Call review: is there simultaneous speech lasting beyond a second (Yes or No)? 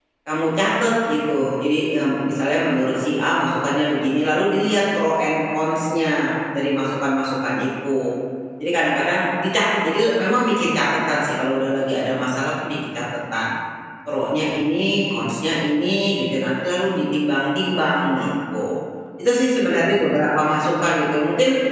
No